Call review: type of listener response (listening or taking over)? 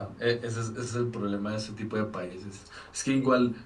listening